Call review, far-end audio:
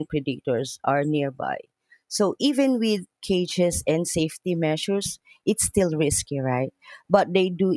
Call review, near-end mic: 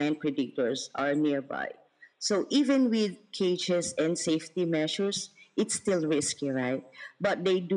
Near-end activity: none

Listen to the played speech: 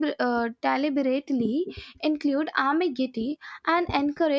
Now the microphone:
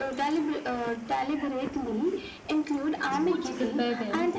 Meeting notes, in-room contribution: present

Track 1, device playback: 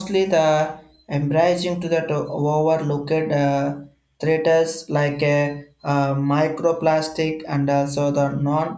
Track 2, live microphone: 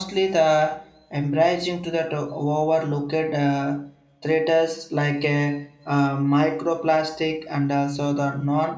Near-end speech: none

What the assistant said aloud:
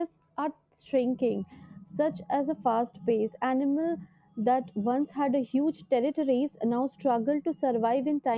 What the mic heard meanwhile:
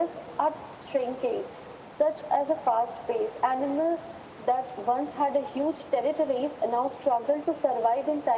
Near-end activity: none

